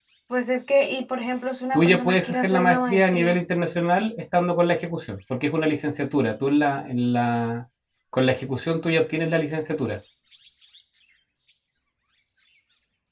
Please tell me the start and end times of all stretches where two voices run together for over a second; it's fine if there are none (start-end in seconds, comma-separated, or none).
1.7-3.4